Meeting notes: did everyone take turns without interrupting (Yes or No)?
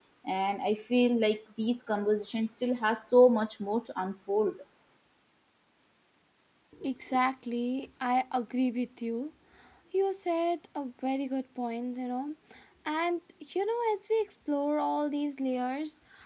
Yes